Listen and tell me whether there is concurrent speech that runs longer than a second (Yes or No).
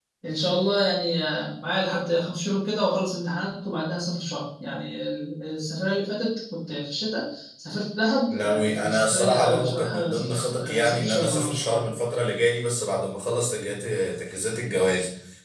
Yes